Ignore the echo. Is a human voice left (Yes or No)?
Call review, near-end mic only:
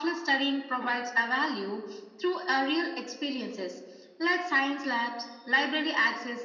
No